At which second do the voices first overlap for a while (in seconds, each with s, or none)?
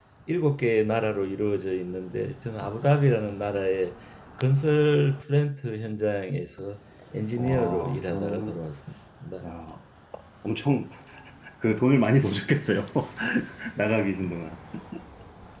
7.3 s